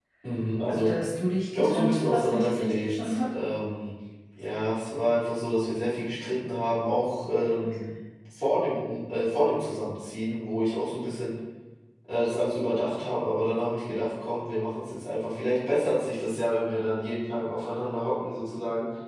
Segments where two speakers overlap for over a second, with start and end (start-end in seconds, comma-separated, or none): 1.6-3.3